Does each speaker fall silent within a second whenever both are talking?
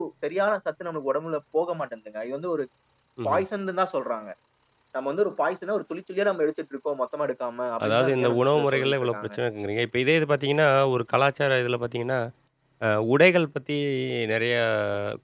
No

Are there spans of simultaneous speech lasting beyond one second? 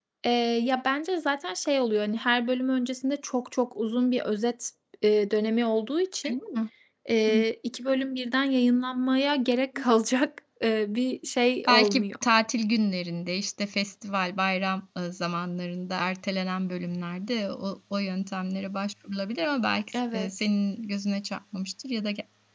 No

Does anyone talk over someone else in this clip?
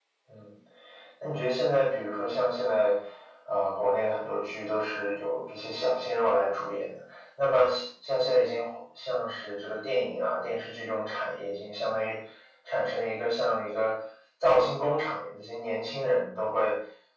No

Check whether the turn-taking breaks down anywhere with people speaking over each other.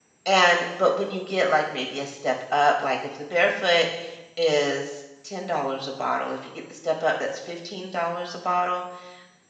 No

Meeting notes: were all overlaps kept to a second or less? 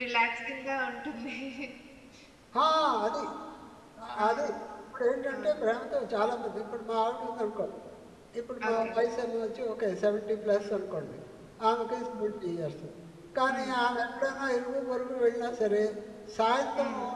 Yes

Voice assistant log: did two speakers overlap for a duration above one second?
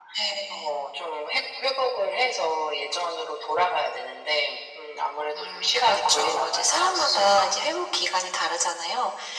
Yes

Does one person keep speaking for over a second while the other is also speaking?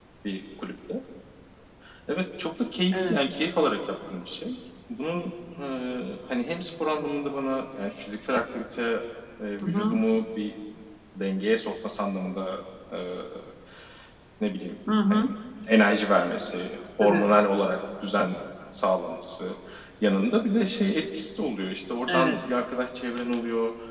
No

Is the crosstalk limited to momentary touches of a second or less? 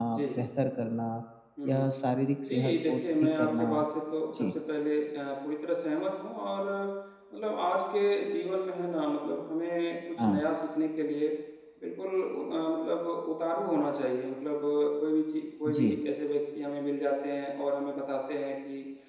No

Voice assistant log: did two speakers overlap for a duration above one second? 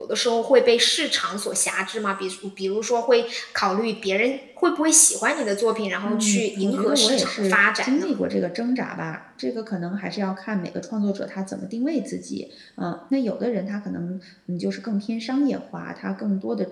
Yes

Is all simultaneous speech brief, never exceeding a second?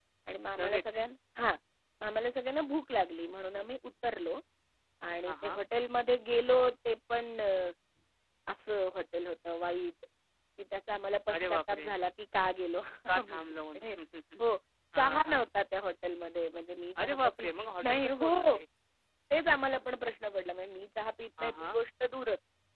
No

